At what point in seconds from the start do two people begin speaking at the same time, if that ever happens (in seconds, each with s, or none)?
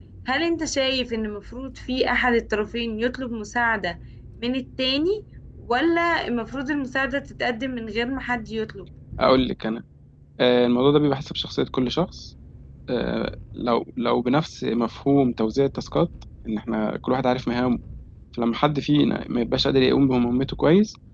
none